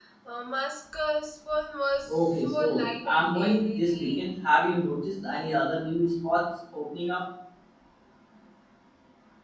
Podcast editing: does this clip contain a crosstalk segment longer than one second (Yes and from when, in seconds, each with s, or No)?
Yes, from 2.1 s